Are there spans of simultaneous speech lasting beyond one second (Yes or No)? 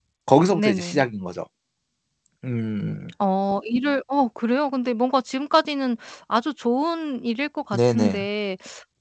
No